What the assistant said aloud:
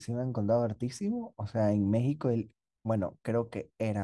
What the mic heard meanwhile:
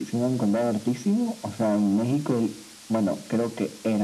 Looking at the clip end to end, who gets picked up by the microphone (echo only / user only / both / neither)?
echo only